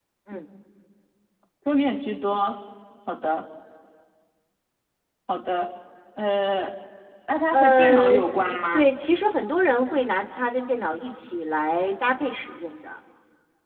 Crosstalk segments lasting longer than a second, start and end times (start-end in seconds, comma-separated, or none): 7.5-9.0